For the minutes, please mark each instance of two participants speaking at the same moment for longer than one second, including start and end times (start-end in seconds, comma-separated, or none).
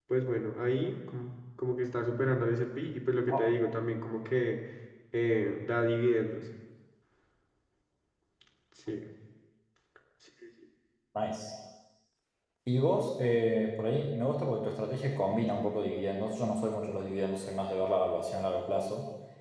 none